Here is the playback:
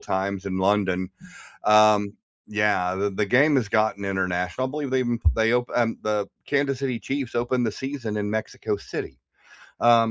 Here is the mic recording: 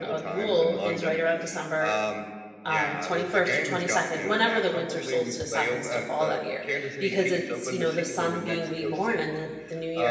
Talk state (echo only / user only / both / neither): both